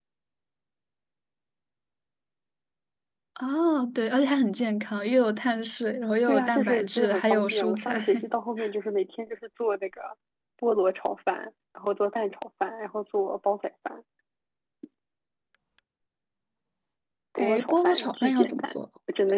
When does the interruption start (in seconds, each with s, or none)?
6.3 s